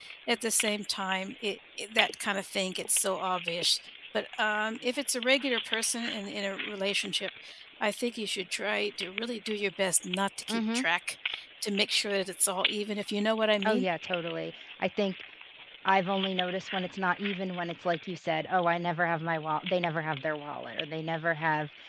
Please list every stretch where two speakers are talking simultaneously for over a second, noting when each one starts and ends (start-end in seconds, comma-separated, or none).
none